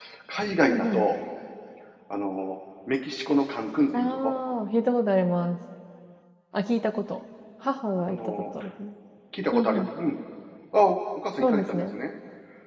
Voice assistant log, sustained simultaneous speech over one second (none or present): none